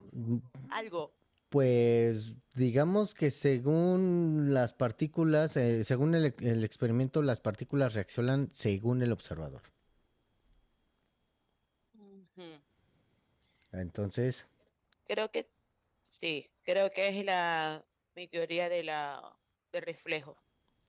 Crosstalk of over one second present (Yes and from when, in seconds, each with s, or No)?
No